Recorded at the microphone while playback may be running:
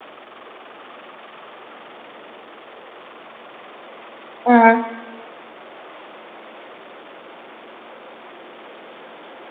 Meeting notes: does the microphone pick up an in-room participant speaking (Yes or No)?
Yes